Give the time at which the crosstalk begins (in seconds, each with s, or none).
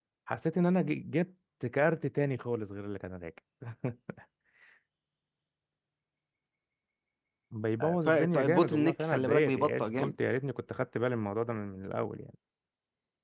8.1 s